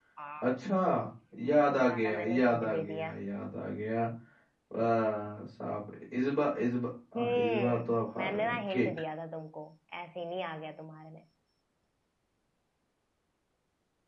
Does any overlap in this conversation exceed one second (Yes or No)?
Yes